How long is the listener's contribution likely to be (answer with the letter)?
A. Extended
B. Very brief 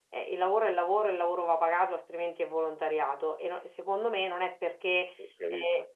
B